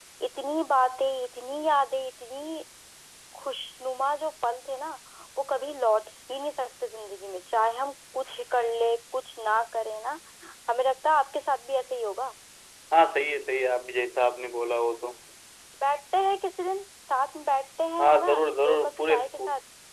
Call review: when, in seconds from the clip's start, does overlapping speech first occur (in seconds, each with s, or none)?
18.0 s